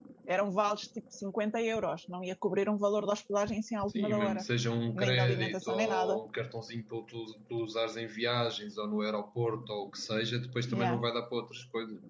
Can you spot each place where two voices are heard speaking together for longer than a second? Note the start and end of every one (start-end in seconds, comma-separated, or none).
4.9-6.2